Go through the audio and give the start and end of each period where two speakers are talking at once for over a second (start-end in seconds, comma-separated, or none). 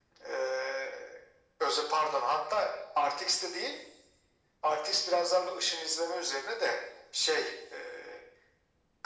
none